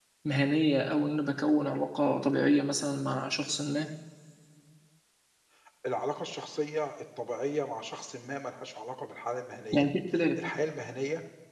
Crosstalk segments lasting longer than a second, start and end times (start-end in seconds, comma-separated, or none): none